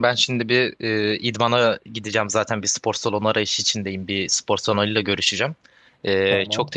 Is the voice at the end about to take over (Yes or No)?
No